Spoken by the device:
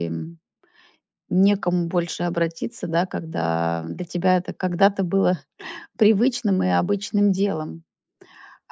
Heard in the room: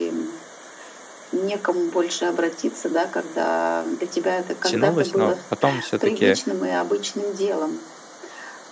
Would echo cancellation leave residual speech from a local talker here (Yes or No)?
Yes